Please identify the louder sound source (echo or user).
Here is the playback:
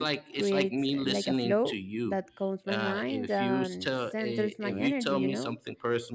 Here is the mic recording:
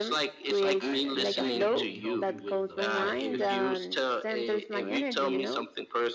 echo